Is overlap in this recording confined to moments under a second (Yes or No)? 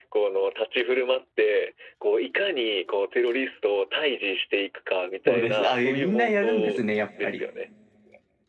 No